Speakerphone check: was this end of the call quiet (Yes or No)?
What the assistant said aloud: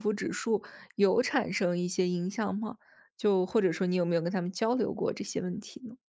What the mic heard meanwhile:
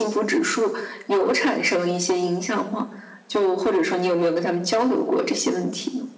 Yes